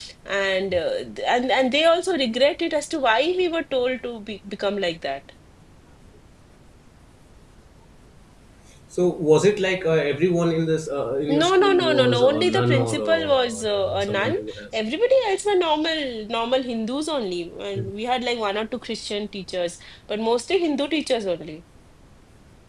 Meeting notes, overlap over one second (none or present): present